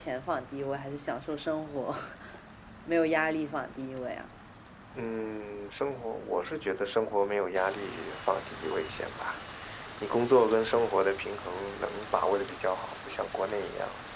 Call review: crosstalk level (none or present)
none